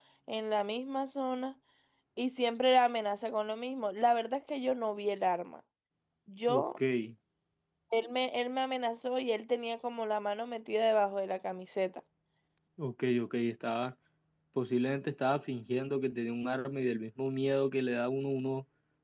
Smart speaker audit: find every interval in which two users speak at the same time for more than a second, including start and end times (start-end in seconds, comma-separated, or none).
none